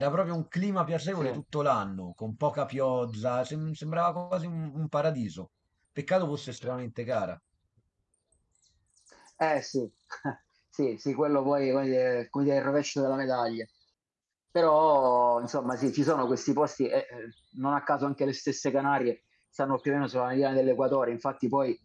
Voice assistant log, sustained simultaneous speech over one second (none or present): none